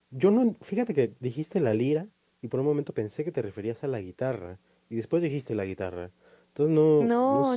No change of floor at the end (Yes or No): No